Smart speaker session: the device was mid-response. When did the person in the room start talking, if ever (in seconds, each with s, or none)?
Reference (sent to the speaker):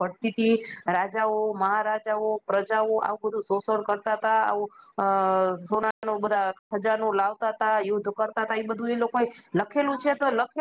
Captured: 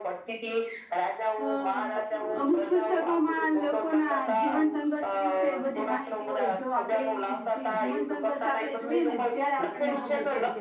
1.4 s